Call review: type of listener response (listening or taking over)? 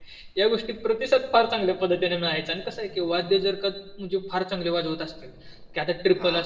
listening